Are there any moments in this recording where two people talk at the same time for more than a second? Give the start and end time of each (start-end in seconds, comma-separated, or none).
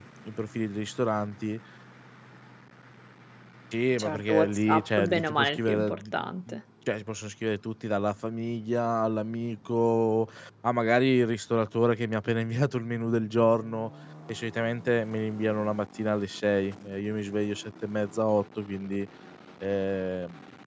4.0-6.6